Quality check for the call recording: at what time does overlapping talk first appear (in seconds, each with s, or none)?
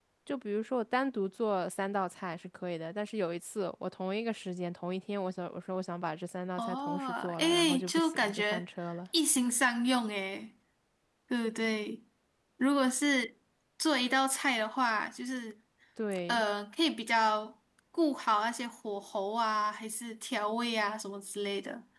6.6 s